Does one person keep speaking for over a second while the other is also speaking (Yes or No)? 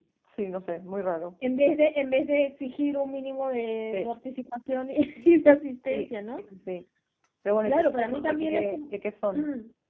Yes